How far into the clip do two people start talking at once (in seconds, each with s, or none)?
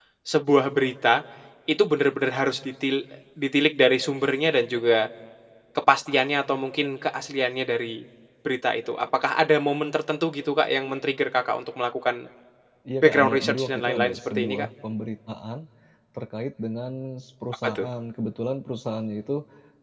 13.0 s